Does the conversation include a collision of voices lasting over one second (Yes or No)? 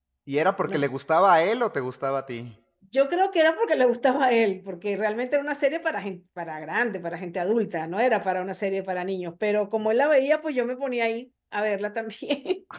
No